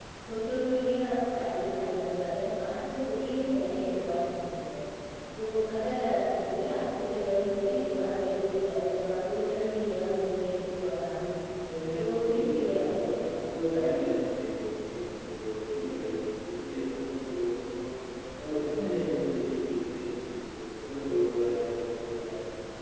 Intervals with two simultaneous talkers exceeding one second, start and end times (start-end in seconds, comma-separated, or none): 11.9-13.7